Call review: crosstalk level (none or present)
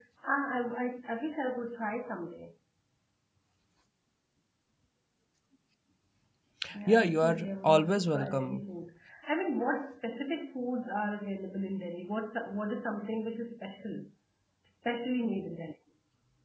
present